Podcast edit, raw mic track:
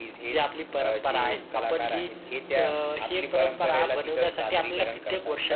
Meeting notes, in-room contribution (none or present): none